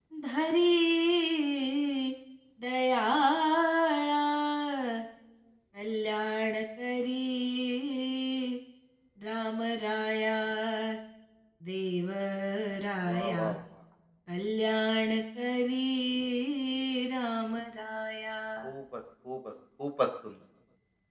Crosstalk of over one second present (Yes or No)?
No